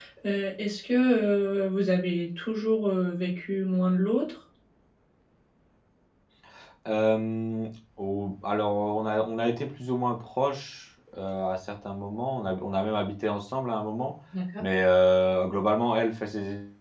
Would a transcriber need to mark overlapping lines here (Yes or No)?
No